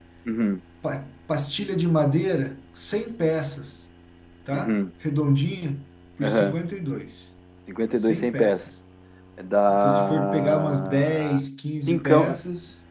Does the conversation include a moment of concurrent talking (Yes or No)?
Yes